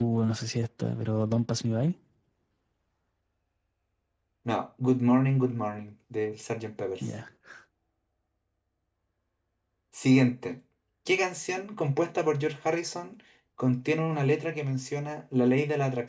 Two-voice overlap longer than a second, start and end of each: none

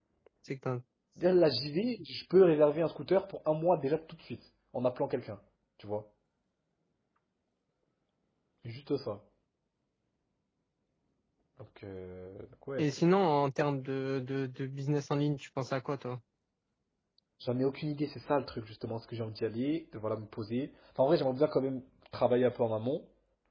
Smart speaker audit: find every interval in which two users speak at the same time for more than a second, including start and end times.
none

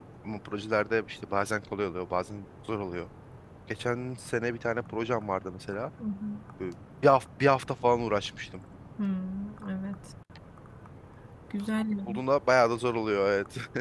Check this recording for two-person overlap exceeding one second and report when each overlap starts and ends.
none

